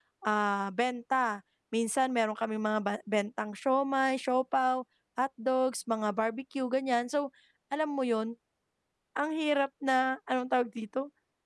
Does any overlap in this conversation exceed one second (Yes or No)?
No